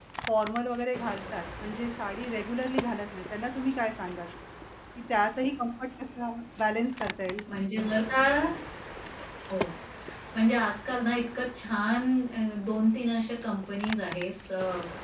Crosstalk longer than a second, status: none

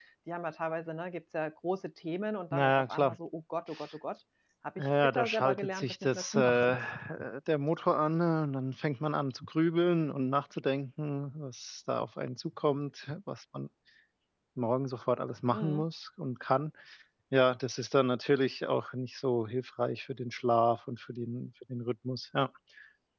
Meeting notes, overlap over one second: present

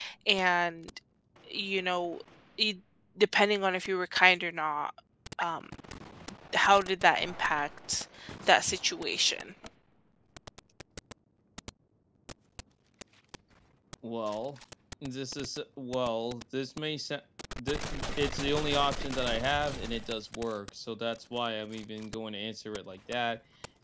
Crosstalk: none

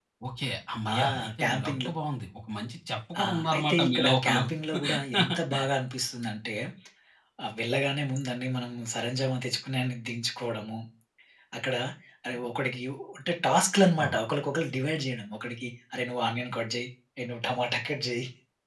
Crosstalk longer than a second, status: present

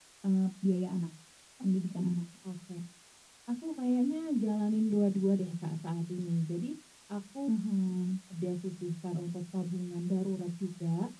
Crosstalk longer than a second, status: none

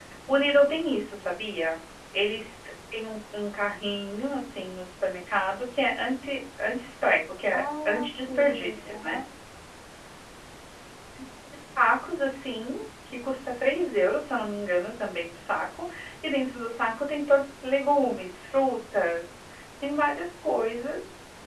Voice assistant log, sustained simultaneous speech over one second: present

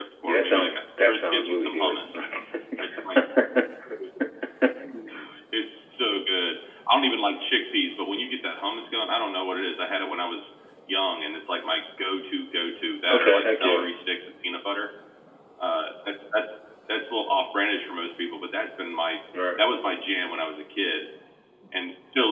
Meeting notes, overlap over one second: present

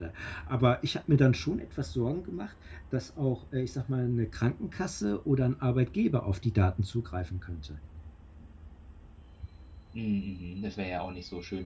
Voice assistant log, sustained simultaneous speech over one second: none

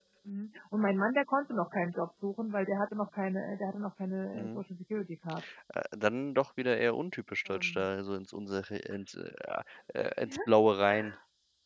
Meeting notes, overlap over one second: none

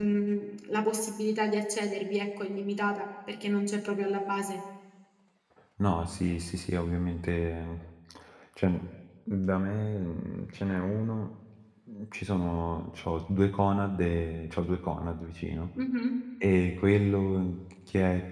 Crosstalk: none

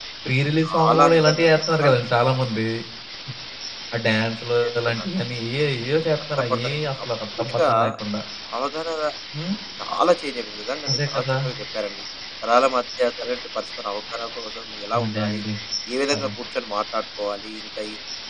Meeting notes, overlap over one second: present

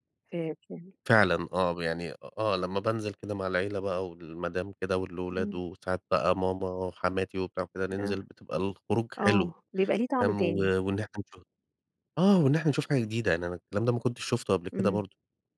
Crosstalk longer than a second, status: none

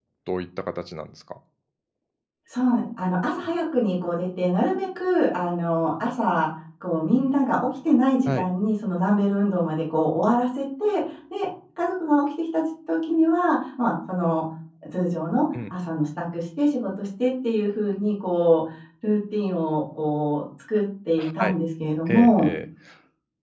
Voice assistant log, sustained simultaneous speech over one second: none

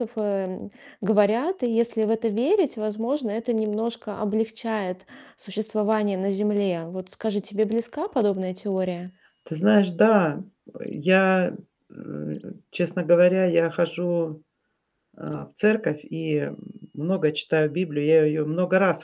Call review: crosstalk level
none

